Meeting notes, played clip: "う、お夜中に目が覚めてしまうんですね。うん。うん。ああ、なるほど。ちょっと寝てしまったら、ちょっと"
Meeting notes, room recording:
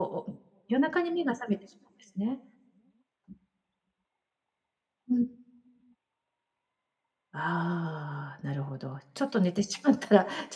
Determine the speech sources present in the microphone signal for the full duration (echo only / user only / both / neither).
echo only